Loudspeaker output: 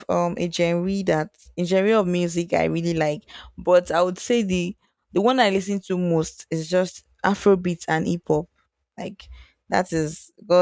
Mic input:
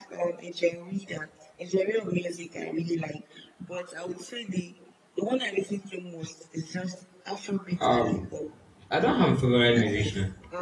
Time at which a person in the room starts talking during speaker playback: 7.8 s

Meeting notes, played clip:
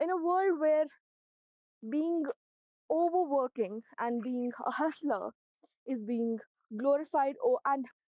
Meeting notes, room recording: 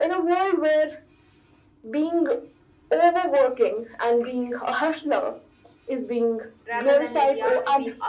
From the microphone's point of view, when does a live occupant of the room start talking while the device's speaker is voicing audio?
6.7 s

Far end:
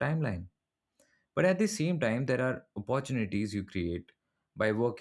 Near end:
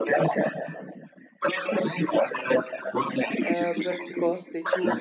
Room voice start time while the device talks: 3.4 s

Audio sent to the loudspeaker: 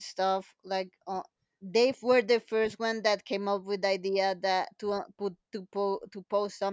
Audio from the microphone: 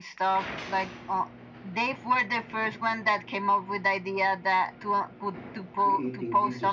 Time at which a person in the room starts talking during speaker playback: 5.8 s

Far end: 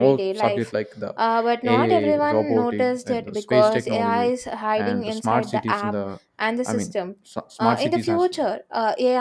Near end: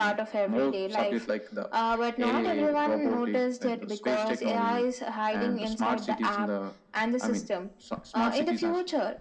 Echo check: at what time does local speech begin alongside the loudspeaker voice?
none

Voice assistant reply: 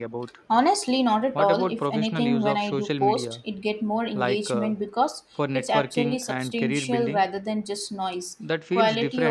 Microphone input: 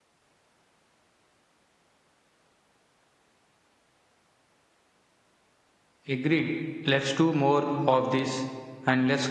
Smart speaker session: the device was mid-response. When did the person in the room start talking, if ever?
6.0 s

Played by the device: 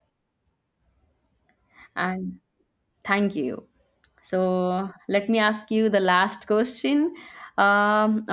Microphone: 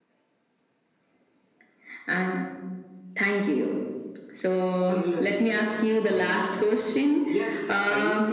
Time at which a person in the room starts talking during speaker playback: 4.7 s

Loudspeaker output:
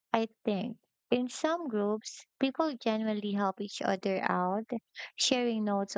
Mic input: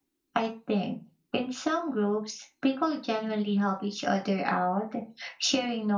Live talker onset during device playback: none

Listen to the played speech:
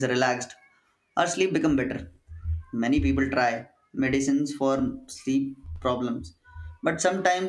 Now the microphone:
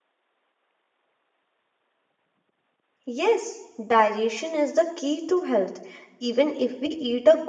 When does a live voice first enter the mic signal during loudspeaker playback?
3.0 s

